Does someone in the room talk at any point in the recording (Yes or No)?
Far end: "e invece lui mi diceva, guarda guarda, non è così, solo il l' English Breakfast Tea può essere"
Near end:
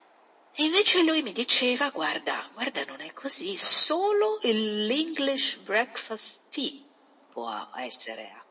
No